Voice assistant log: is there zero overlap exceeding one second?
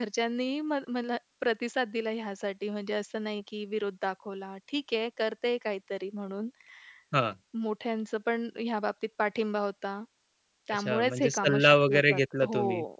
No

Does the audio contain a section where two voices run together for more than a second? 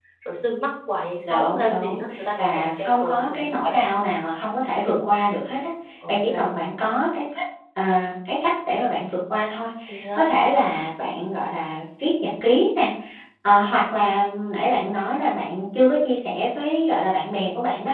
Yes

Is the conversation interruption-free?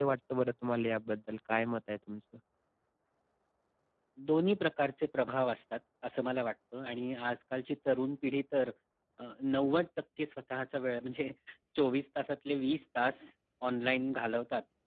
Yes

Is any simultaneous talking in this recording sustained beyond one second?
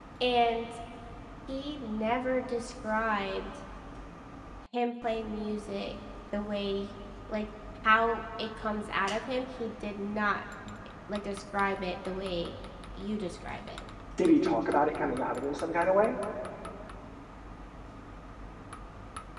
No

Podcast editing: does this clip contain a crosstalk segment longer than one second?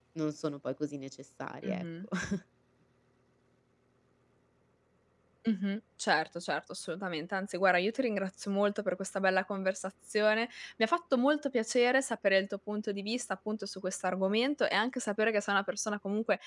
No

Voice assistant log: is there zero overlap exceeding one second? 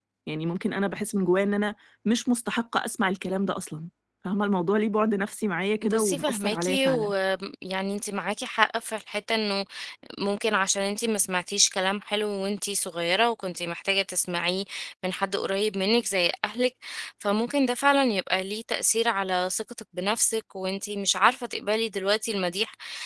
No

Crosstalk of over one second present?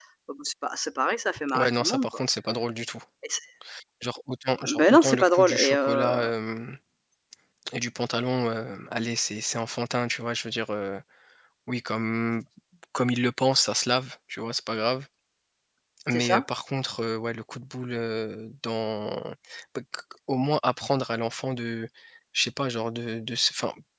Yes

